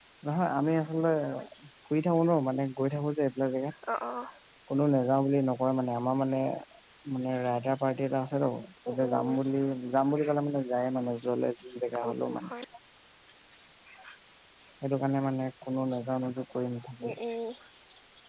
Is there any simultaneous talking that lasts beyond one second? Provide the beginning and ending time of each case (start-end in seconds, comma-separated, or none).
none